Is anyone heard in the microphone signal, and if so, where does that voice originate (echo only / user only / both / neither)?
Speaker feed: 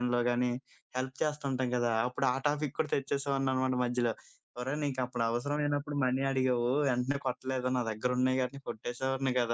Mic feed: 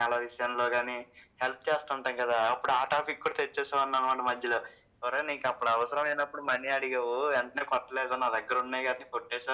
echo only